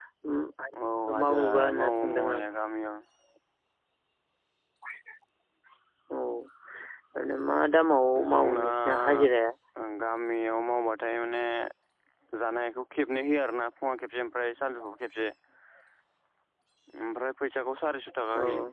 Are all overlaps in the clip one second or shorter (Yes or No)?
No